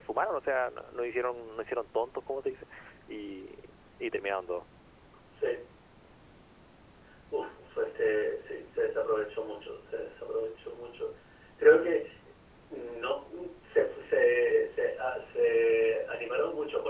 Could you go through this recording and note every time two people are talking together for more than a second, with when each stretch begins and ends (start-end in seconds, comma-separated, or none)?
none